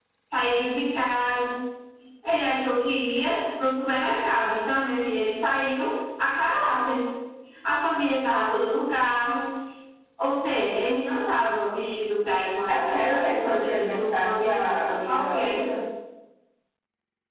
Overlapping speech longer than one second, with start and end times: 12.7-15.6

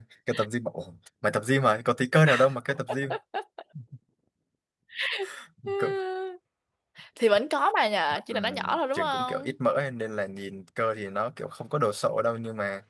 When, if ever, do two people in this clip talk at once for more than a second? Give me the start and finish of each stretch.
8.3-9.5

